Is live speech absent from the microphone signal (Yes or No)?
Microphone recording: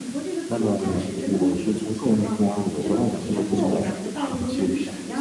No